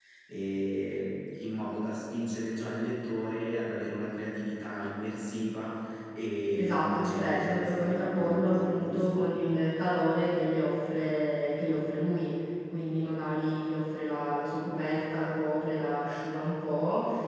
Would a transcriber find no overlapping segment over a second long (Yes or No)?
No